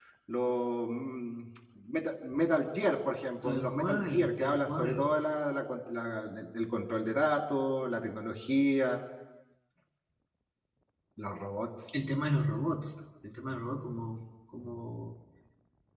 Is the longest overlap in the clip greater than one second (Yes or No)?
Yes